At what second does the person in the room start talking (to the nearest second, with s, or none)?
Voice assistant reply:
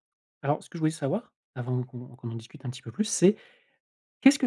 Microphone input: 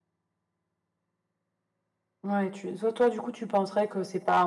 2 s